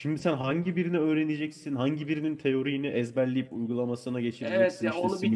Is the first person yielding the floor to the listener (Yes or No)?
Yes